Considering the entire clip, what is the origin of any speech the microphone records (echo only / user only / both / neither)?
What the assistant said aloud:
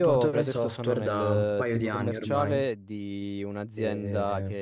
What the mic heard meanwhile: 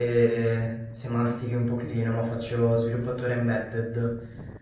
user only